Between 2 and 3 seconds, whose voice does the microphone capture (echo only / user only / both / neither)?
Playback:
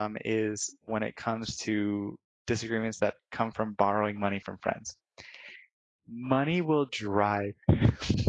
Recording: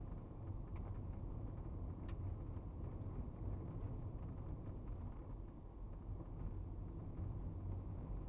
neither